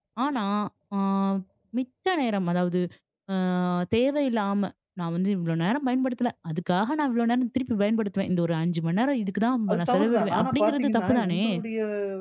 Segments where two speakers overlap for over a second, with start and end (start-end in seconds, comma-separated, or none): 9.7-11.4